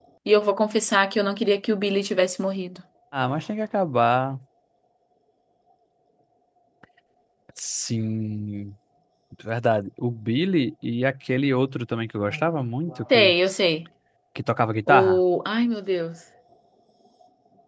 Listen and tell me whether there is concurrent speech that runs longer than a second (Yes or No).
No